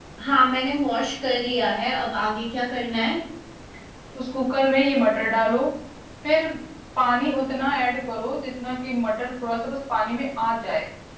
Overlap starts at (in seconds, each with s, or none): none